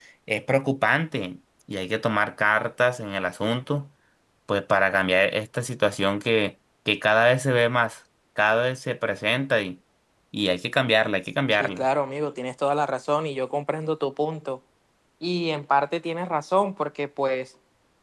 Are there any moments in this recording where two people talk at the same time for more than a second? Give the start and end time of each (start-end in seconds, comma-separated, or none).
none